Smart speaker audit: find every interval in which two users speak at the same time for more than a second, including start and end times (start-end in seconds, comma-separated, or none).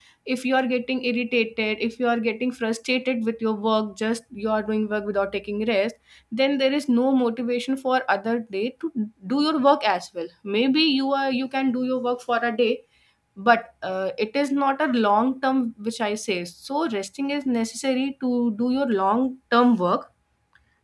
none